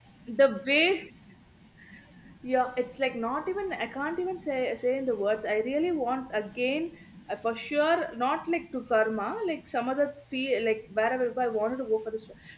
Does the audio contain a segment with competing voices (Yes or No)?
No